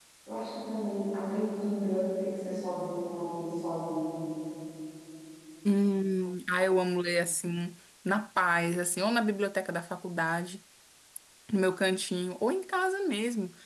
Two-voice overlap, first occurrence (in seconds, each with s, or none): none